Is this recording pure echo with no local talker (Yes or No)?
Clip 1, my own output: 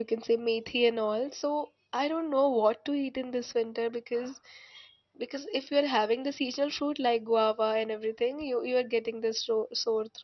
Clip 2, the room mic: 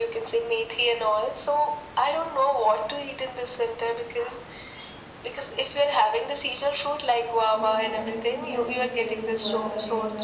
No